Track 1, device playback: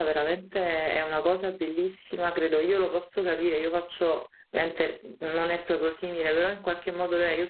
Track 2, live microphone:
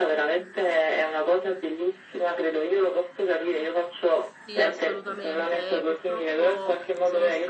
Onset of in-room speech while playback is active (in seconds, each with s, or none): 4.4 s